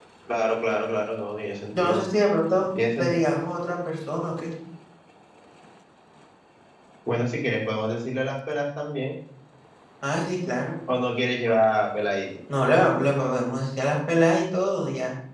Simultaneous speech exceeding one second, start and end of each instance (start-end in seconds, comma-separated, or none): none